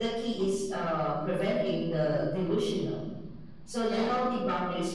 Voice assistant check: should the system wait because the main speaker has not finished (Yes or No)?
Yes